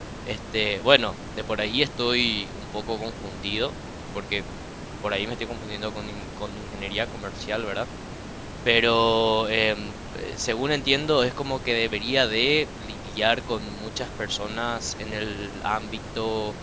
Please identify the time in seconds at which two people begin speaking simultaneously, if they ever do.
none

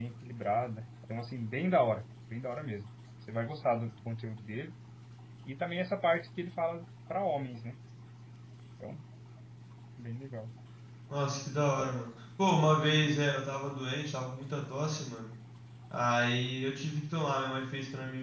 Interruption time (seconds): none

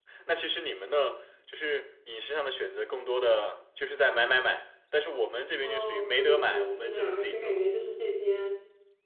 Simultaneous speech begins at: 5.6 s

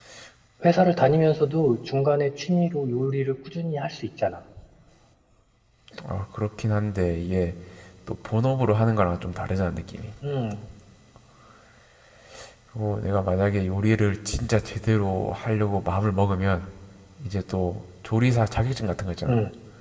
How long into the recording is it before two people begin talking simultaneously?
none

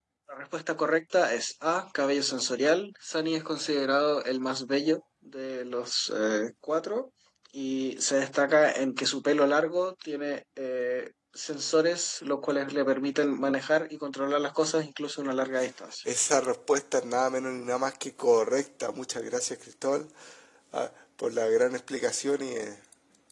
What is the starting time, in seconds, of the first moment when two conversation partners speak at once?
none

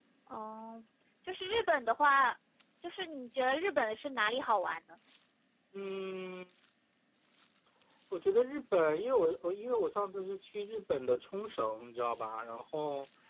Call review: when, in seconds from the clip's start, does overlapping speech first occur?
none

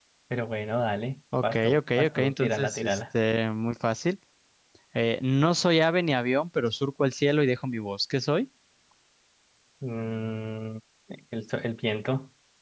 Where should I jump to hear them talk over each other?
1.3 s

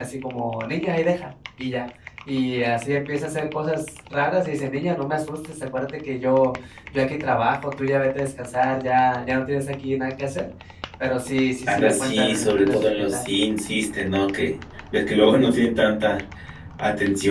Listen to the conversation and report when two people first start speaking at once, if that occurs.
11.7 s

